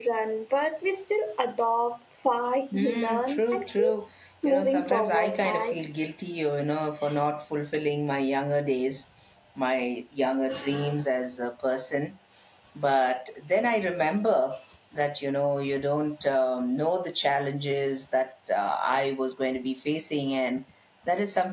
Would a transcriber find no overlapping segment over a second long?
No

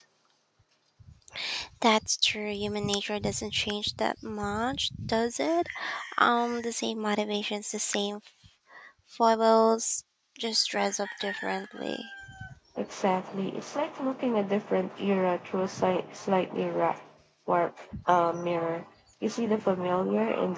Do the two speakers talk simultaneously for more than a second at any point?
No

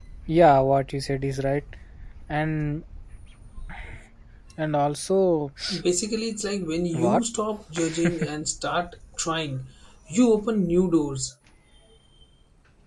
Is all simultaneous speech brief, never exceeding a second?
Yes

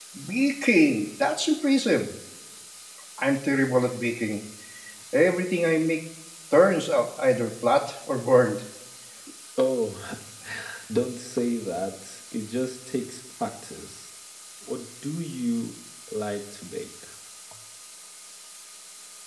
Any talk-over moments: No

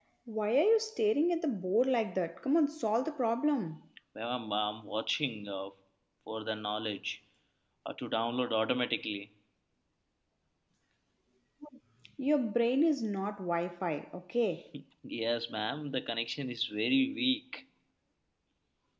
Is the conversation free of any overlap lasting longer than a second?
Yes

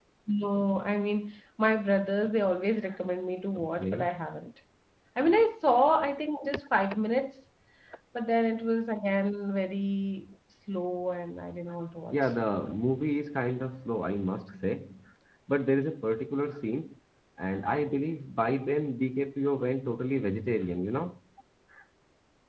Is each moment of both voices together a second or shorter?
Yes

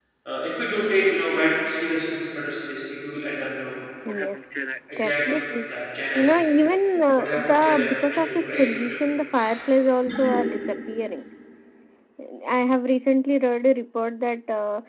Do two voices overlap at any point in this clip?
Yes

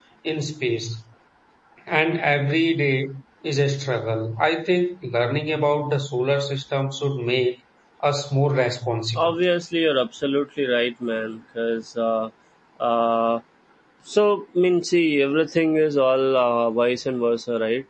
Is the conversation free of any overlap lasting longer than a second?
Yes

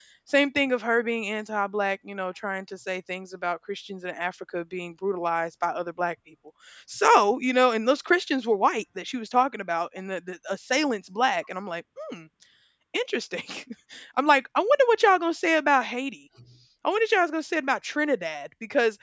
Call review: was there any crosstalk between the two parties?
No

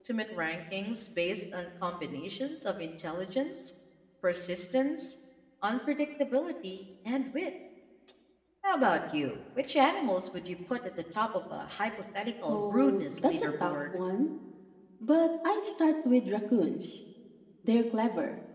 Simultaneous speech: Yes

